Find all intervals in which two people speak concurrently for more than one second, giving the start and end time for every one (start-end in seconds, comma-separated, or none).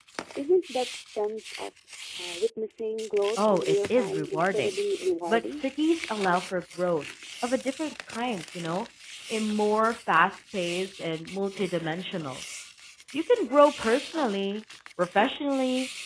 3.4-4.7